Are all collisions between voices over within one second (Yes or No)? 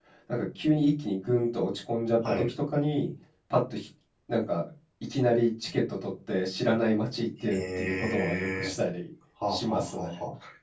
No